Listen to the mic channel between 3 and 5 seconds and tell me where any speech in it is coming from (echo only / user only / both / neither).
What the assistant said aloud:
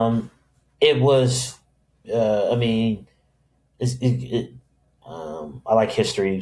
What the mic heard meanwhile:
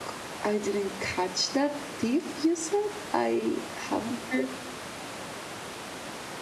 user only